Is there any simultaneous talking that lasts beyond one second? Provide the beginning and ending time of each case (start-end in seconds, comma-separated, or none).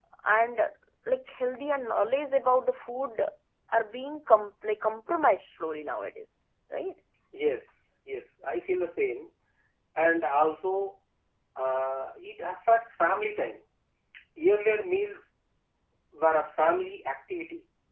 none